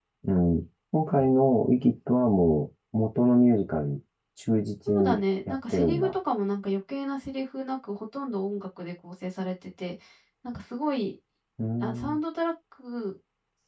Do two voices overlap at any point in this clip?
Yes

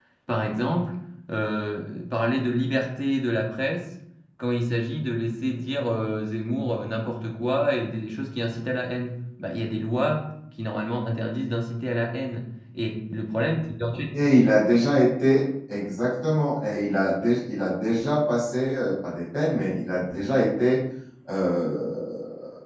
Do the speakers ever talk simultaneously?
No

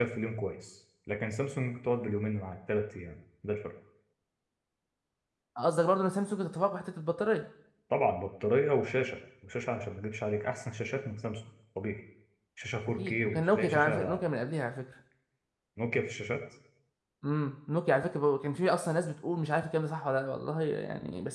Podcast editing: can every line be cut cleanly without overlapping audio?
No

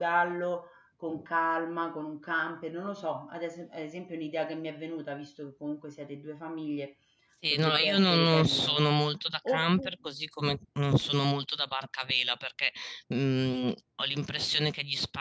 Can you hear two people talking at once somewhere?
Yes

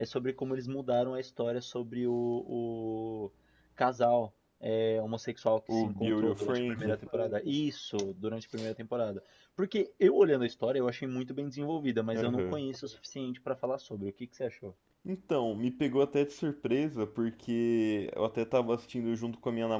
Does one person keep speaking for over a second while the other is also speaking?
Yes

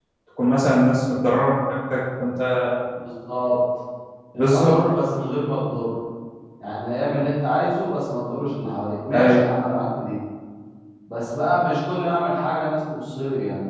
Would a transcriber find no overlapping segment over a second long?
Yes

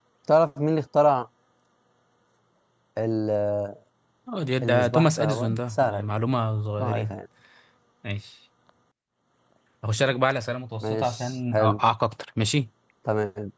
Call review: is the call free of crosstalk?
No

